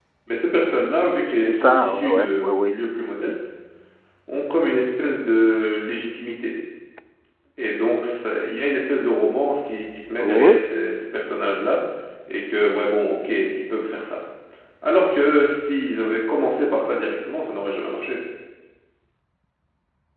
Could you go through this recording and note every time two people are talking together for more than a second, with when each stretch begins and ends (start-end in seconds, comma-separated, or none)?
1.4-2.8